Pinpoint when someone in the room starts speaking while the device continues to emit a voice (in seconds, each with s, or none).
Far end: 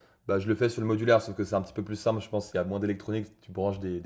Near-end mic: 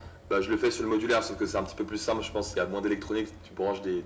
none